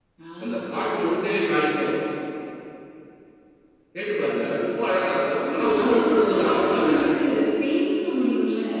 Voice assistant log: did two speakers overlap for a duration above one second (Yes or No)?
Yes